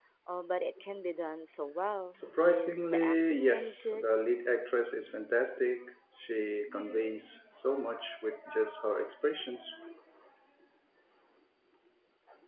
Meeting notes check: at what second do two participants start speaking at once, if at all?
2.1 s

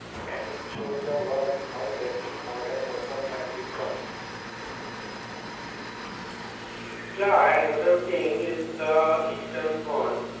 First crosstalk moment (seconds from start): none

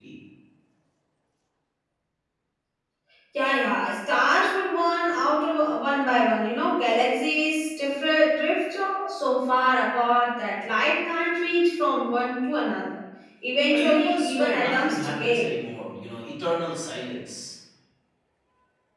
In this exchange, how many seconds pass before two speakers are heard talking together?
13.7 s

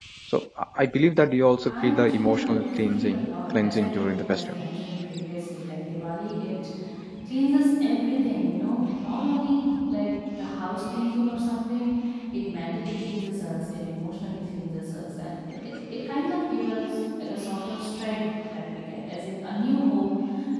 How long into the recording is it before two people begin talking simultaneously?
1.6 s

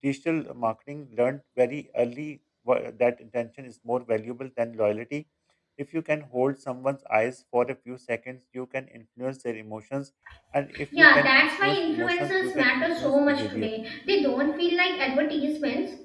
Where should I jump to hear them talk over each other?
11.0 s

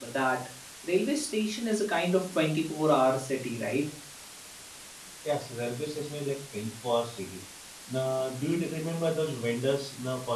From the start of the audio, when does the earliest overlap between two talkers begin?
none

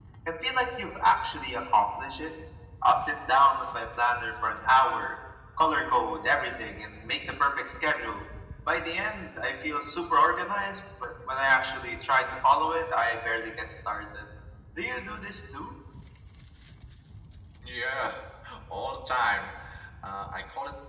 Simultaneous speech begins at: none

